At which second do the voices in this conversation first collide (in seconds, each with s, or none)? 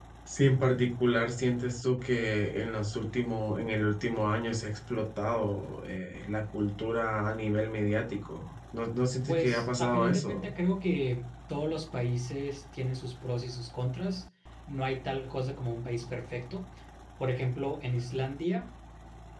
9.3 s